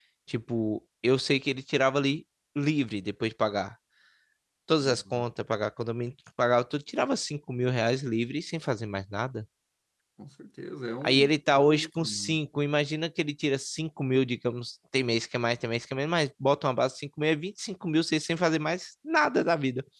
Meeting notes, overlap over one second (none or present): present